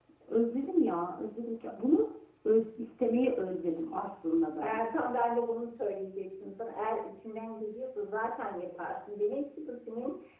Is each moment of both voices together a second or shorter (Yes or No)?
Yes